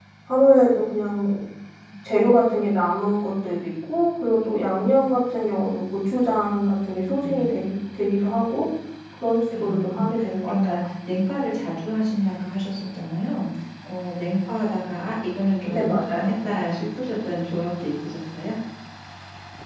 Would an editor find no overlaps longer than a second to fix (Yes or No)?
No